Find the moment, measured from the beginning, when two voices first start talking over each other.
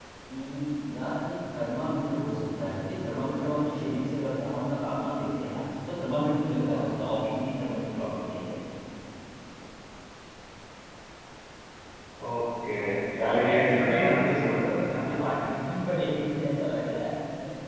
13.2 s

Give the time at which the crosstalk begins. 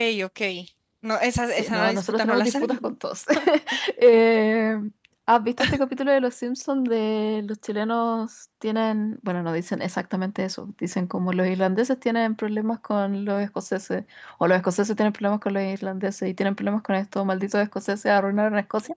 1.5 s

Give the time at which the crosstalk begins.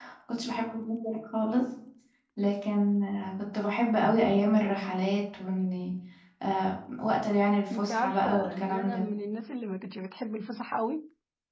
7.7 s

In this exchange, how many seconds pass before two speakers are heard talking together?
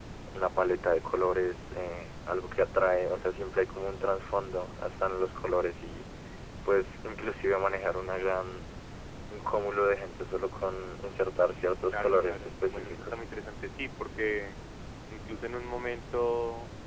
11.9 s

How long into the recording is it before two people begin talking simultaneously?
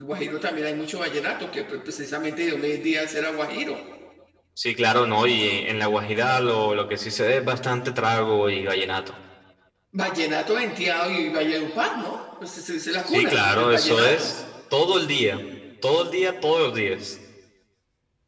12.9 s

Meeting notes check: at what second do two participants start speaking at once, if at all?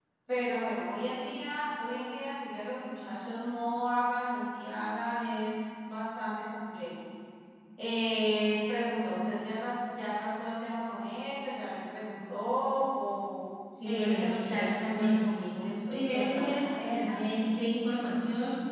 13.8 s

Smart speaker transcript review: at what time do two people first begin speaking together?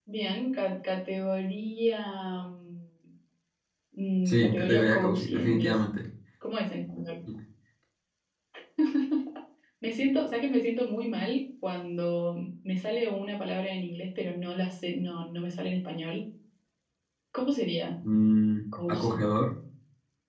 4.2 s

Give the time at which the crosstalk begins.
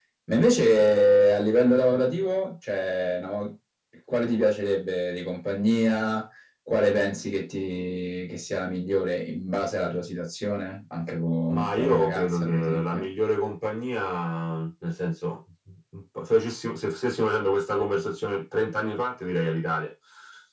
11.5 s

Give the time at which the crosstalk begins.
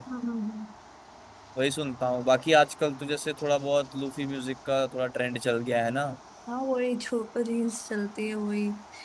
none

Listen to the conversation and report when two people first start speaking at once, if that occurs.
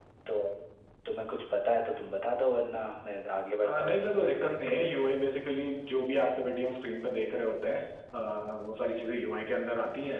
3.6 s

